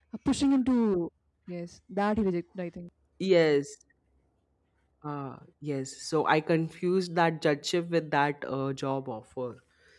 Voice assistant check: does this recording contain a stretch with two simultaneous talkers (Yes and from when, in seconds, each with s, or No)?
No